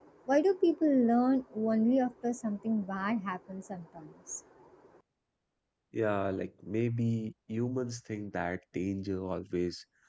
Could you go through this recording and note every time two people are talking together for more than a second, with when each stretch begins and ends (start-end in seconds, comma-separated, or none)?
none